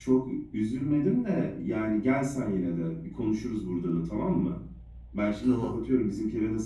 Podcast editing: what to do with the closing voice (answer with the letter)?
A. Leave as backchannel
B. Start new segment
A